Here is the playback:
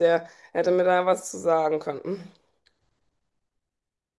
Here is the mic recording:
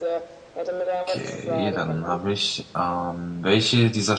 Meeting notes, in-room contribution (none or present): present